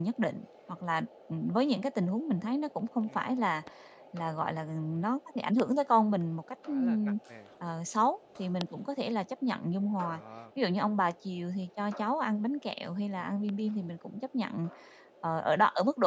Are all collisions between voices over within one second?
Yes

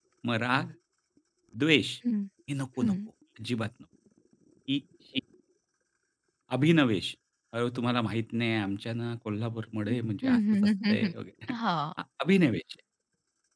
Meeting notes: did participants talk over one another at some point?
Yes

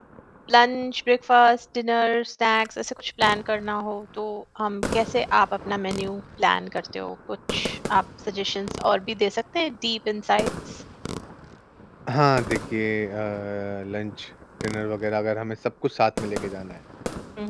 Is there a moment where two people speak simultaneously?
No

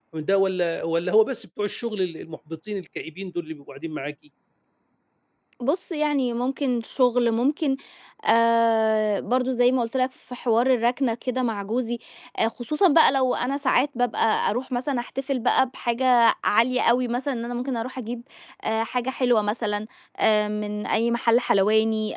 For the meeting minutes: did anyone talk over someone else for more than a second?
No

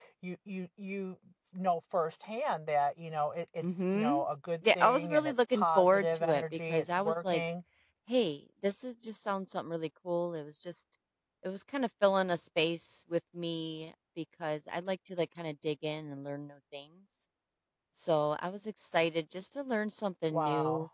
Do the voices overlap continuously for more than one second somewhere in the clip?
Yes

